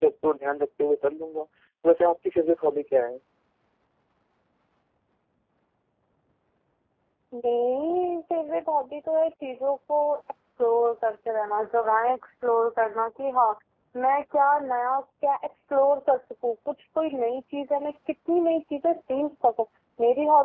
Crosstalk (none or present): none